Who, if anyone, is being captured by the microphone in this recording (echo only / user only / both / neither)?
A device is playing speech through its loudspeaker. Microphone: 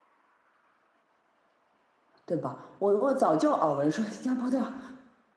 user only